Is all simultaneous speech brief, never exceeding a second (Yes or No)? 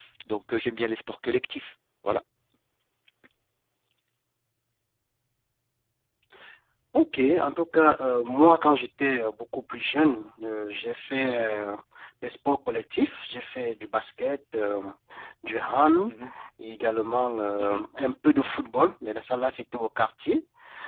Yes